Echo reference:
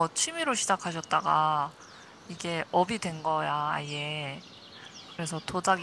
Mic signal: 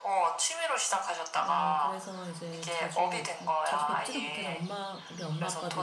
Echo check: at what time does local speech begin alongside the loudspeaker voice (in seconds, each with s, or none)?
1.4 s